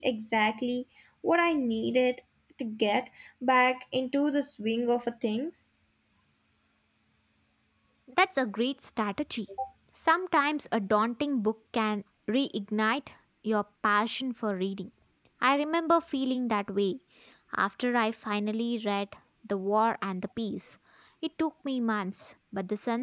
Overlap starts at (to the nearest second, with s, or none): none